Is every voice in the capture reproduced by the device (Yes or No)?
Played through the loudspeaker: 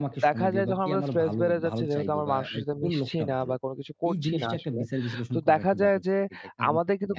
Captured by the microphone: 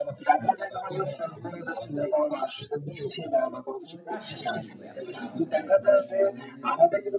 No